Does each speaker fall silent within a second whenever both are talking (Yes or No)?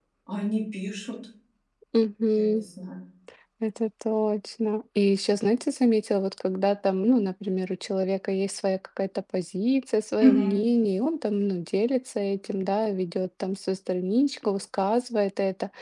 Yes